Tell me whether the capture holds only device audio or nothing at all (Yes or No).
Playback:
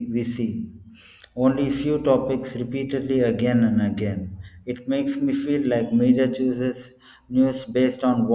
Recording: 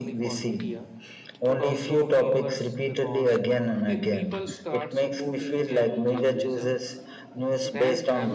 No